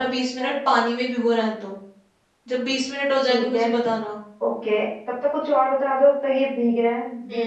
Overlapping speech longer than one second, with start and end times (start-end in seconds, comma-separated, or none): none